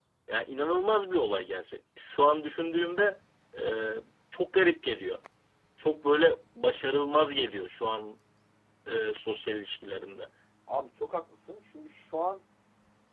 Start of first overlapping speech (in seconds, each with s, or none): none